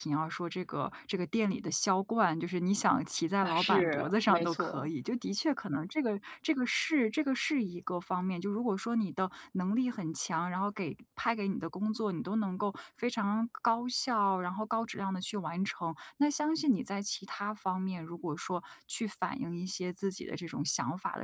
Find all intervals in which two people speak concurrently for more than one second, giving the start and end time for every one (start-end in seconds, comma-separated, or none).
3.4-4.9